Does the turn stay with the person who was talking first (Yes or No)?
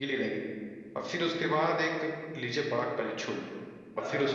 Yes